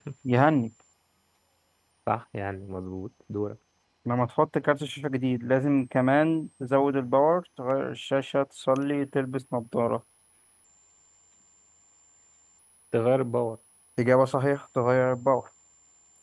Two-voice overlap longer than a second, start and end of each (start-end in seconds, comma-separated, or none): none